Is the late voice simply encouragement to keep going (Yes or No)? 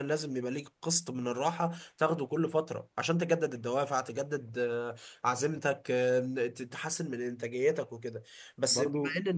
Yes